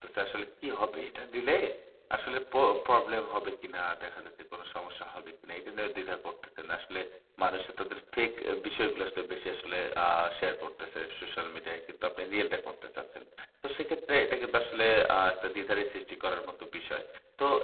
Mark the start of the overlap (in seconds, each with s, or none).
none